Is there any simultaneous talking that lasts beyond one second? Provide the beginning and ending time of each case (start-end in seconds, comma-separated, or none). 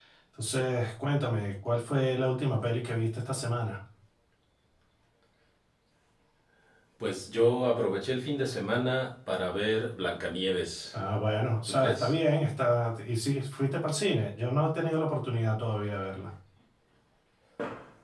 none